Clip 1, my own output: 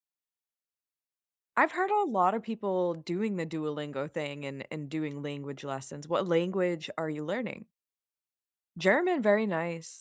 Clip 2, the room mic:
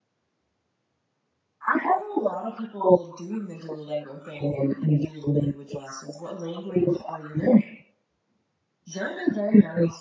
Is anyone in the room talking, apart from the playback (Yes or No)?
No